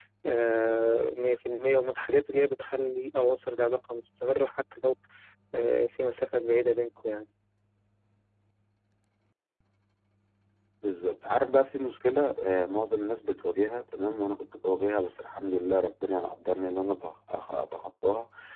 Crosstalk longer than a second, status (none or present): none